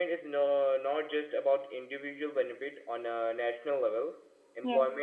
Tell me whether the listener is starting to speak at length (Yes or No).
No